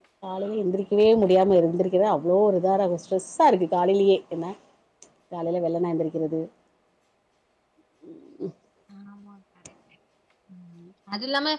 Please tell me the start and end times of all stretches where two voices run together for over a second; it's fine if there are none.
none

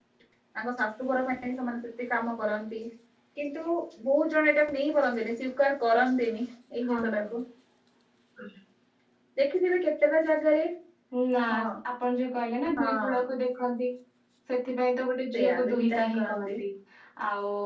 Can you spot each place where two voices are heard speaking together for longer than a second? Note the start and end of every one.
15.3-16.5

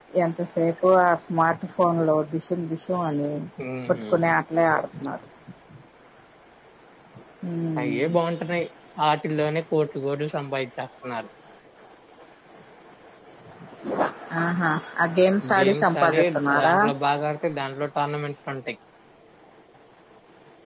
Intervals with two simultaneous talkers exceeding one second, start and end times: 15.6-16.8

